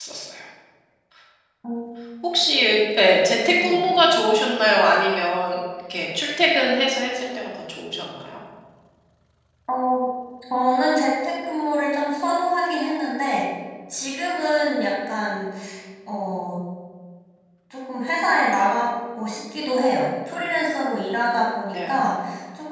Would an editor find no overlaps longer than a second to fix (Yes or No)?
Yes